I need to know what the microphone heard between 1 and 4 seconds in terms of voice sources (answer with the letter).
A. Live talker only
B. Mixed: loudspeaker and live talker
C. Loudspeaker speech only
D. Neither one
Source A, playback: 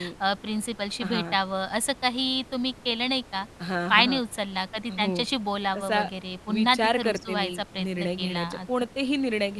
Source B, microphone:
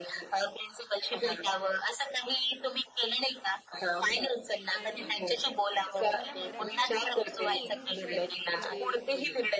C